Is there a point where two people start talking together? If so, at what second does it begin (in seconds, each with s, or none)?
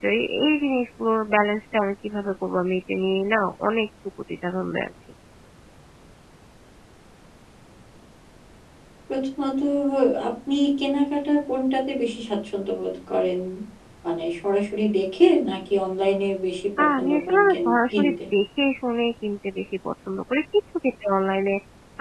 16.8 s